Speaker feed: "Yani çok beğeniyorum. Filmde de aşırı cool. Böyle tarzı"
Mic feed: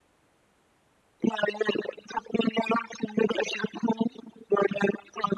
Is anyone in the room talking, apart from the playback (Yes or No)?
No